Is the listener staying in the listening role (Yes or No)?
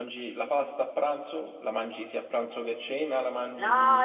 No